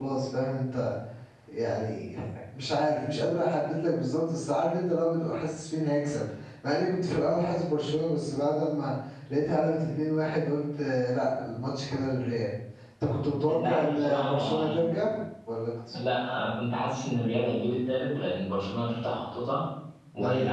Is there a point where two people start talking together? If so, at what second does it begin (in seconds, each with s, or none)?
13.5 s